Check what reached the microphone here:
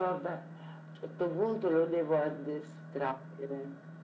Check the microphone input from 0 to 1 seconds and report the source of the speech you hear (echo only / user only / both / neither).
echo only